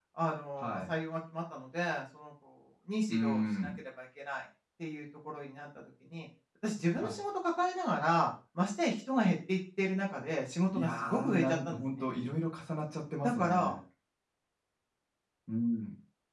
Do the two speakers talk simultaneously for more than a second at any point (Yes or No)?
Yes